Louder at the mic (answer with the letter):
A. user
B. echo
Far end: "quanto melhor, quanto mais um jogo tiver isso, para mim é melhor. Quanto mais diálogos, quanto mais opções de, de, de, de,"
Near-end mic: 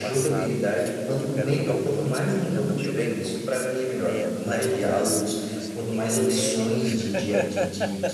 B